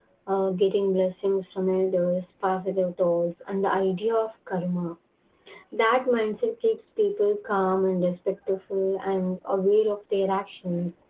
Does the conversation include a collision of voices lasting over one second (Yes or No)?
No